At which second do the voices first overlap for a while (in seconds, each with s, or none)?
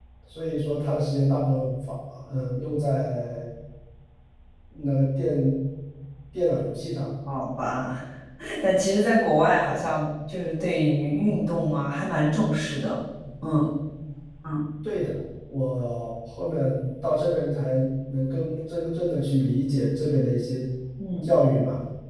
none